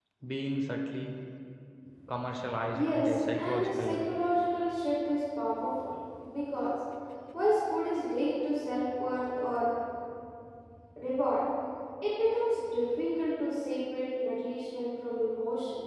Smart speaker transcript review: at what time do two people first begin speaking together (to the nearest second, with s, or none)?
3 s